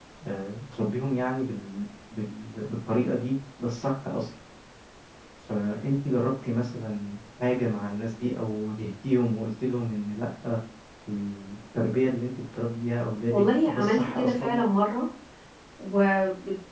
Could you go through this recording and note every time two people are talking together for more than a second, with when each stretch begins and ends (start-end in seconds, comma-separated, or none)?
13.3-14.6